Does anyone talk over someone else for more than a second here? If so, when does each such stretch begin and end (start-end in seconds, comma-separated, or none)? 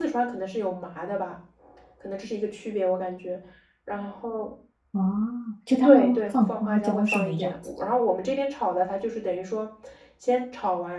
5.8-7.5